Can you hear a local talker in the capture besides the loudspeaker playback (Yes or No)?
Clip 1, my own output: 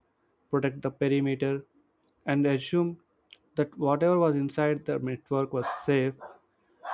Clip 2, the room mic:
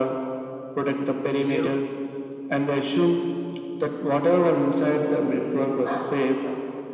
Yes